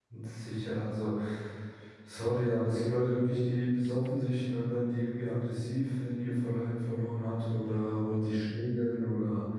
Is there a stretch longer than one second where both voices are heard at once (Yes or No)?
No